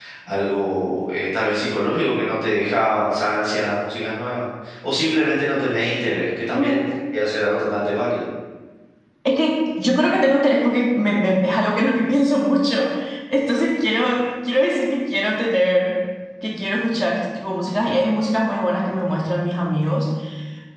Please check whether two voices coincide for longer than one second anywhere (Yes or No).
No